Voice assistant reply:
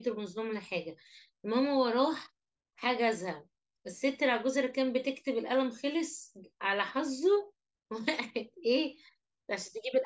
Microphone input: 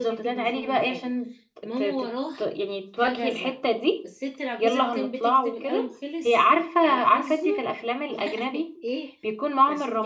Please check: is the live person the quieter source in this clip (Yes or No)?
No